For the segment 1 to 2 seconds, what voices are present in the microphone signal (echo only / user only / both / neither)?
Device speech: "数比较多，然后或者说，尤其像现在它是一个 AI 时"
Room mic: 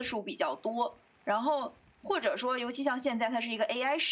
echo only